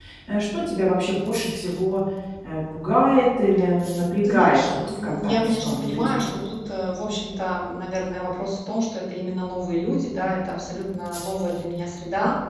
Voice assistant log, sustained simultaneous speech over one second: present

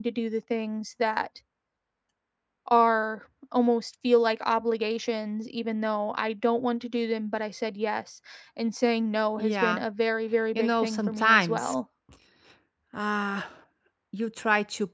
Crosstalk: present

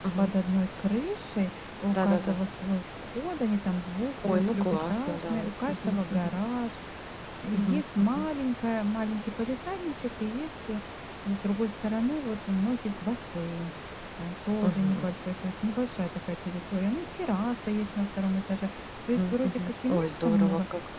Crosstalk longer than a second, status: present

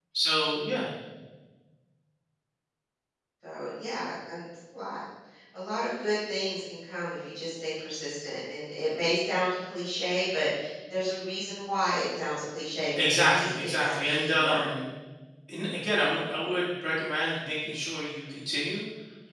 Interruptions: present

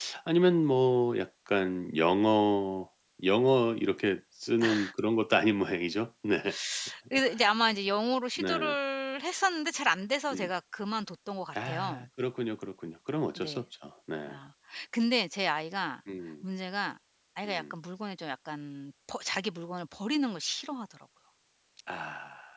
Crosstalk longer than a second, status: none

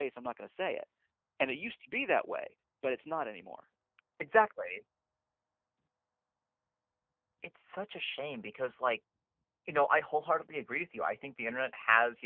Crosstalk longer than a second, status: none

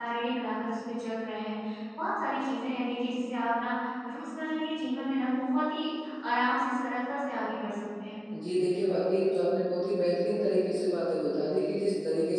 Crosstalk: none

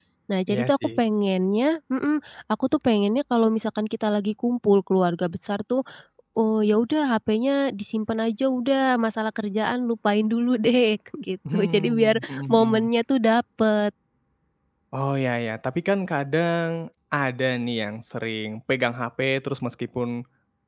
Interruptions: present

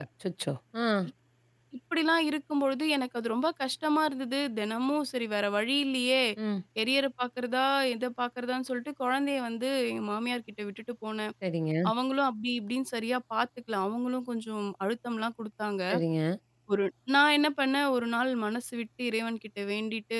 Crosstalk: none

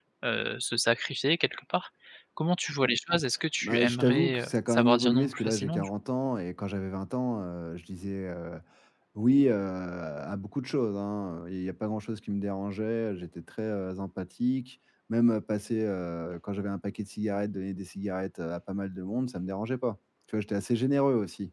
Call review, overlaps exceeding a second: present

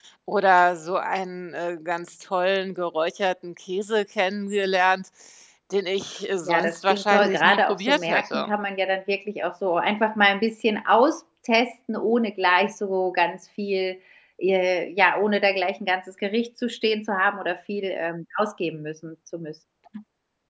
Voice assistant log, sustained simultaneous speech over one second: present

